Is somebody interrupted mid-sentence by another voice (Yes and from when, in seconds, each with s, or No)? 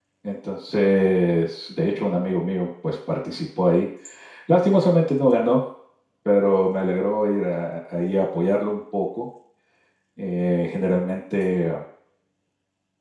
No